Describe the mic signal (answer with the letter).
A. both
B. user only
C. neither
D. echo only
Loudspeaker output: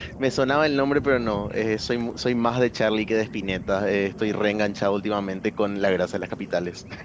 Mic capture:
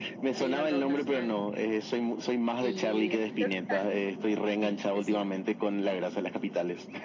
A